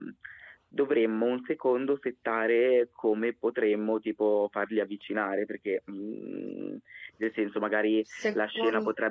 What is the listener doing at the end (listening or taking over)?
listening